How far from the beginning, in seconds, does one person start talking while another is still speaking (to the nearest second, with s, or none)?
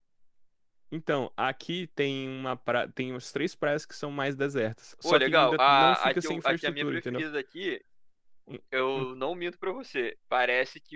5 s